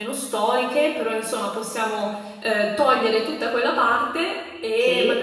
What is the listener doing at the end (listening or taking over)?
listening